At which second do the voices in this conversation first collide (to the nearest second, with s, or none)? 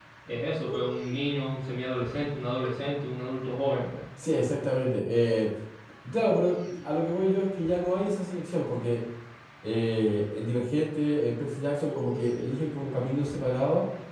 none